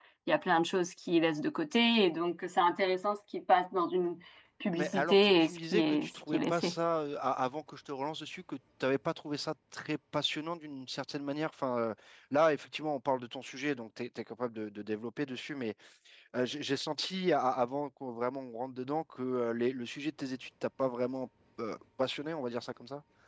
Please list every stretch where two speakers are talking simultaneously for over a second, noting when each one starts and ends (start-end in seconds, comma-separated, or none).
4.8-6.7